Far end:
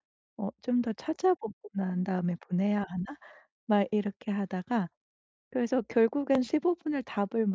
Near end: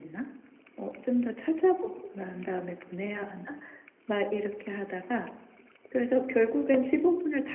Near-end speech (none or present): none